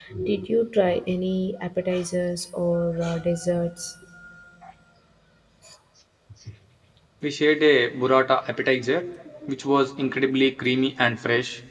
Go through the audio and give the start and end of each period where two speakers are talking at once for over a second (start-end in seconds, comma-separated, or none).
none